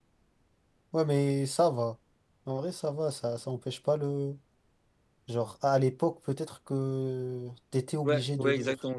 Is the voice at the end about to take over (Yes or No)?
Yes